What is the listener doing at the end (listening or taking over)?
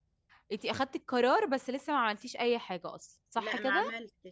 taking over